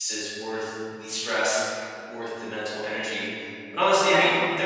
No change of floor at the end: Yes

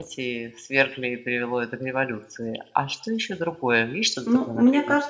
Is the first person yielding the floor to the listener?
Yes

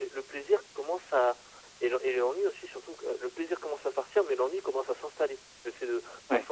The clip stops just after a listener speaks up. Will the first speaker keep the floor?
Yes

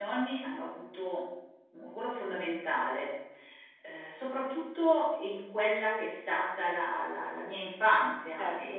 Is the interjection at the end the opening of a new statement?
No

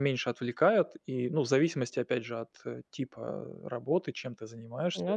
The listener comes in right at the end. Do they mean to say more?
No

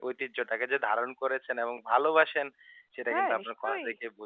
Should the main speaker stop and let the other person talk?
No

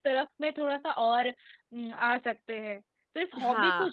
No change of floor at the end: Yes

